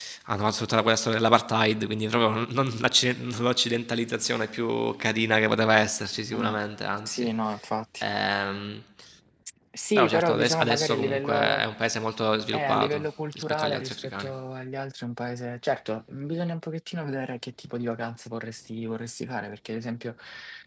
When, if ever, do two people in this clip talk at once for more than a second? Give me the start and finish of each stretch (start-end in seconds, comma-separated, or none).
9.9-11.6, 12.5-14.3